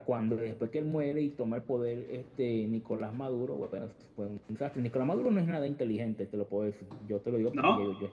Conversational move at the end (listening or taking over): listening